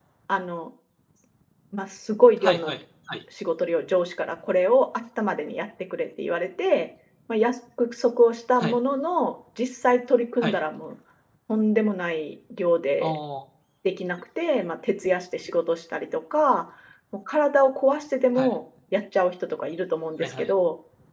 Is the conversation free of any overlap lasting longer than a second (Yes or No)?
Yes